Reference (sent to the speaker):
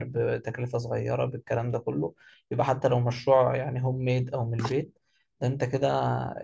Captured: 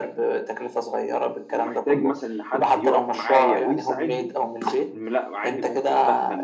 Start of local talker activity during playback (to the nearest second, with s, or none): 1 s